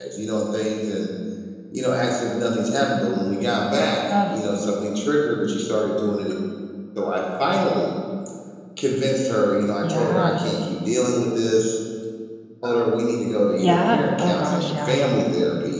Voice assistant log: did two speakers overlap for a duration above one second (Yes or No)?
Yes